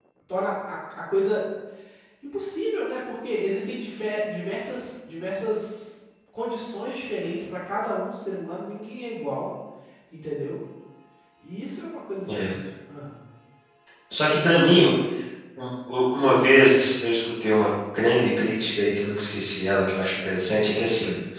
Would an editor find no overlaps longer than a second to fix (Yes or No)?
Yes